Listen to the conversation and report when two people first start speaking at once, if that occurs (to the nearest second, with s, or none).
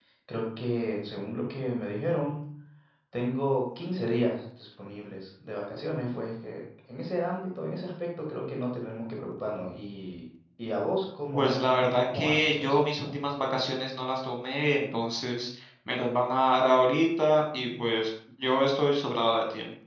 11 s